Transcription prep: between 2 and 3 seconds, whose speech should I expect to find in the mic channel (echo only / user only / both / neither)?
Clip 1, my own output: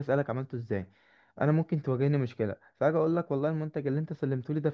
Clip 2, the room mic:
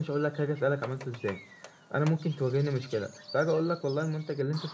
echo only